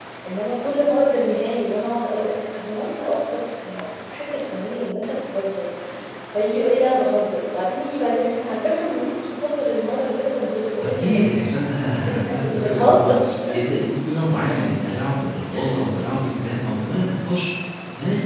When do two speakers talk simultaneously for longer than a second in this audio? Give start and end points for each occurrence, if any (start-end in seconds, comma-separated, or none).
10.9-13.1